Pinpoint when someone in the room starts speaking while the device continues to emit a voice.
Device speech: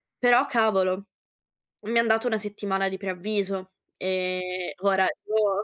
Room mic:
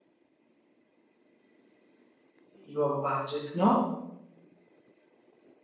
2.6 s

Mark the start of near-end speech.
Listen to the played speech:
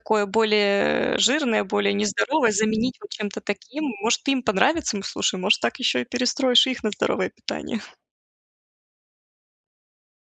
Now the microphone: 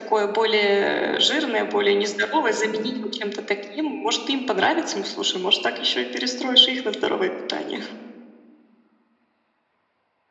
none

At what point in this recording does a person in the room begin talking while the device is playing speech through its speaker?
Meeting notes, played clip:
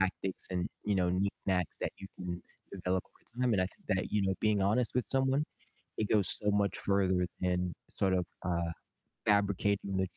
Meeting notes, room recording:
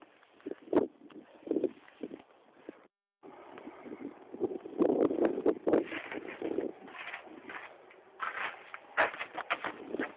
none

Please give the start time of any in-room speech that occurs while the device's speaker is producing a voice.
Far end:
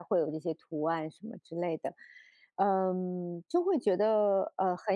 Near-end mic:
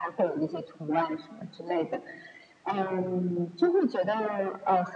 none

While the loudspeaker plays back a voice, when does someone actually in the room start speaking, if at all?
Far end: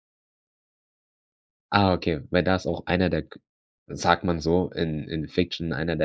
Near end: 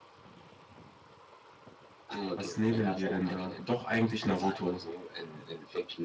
2.2 s

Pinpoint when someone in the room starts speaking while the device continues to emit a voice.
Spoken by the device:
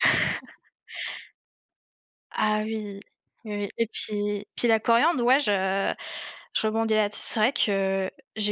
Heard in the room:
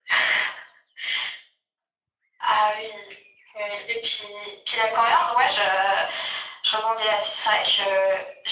none

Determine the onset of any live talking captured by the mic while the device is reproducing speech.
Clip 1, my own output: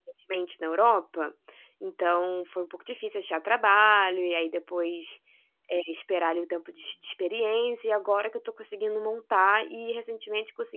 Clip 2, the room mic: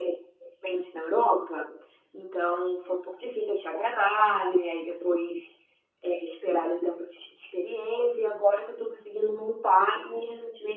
none

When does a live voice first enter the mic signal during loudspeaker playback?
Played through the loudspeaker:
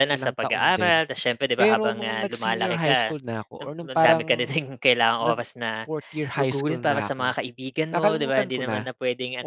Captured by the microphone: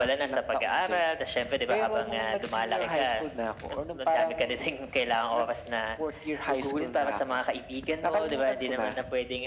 none

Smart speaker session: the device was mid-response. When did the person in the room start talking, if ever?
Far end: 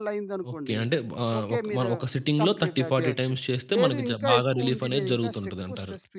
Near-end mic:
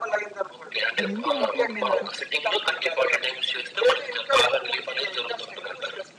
1.0 s

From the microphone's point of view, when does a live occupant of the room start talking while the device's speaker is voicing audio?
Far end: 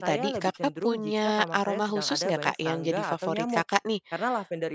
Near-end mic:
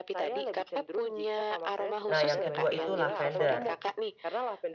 2.1 s

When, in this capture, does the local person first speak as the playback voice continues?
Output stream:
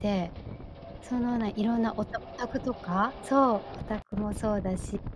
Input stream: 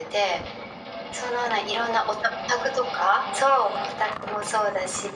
none

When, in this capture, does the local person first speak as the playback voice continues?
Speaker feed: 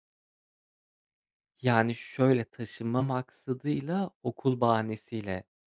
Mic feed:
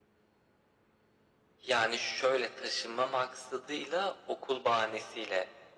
none

